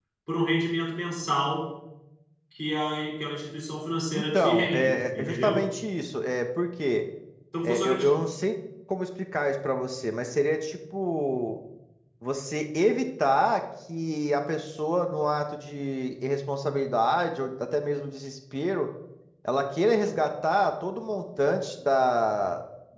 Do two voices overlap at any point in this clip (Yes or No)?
Yes